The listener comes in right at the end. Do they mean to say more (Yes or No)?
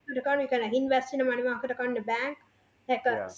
No